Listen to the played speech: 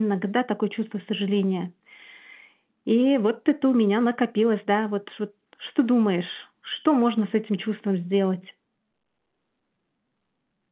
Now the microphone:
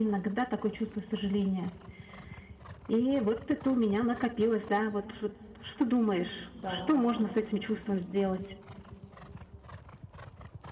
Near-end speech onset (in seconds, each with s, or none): 6.5 s